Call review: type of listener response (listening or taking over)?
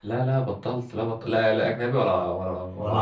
listening